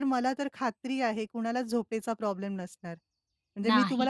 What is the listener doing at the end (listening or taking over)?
listening